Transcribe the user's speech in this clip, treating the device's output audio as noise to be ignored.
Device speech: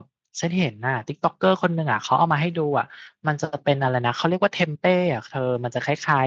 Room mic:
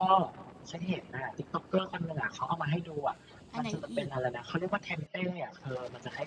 อันไหนอีก

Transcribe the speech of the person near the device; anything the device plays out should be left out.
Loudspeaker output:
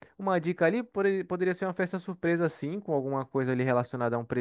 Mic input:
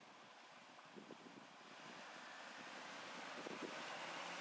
none

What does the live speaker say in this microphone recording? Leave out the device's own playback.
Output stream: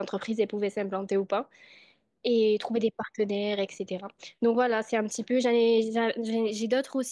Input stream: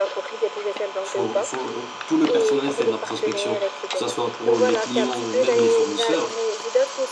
Faut, faut, euh, tout le personnel fait de la prospection, que ce soit pour les clients ou même les fournisseurs.

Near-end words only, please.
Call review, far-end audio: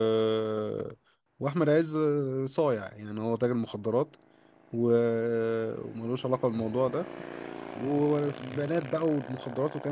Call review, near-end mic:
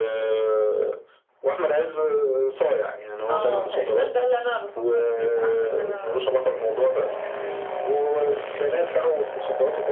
اه تقريبا ده اللي انا بفكر فيه فحاسة ان انا

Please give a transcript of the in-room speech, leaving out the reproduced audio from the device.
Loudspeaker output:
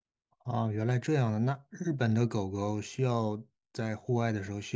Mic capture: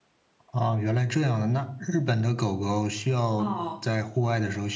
哦，

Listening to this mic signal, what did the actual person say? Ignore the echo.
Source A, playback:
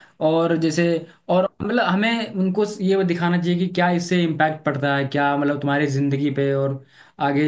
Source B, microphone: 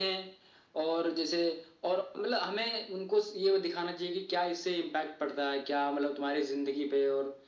none

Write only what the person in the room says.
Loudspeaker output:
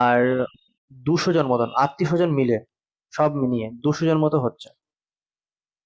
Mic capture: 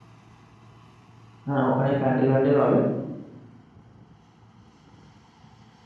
হ্যাঁ, ওখানেই প্যান্ডেল ম্যান্ডেল হবে।

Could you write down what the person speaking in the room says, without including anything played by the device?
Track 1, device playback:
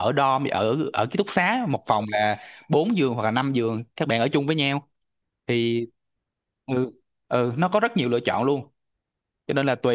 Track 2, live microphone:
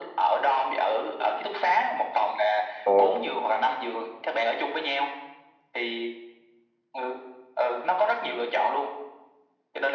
Ồ.

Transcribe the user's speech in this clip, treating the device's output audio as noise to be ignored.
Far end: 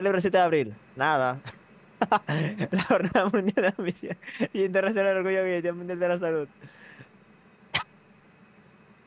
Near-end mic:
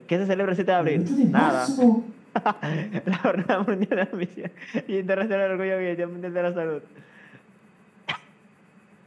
El 8 de marzo.

